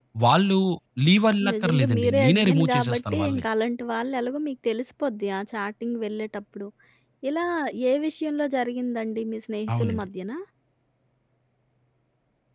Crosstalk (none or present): present